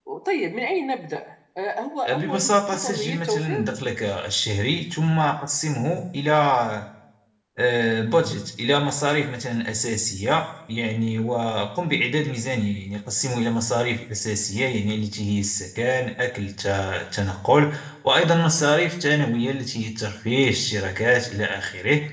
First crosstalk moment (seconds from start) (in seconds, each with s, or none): 2.0 s